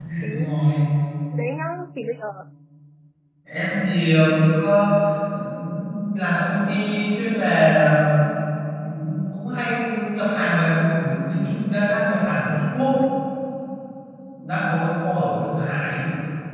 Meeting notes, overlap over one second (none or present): none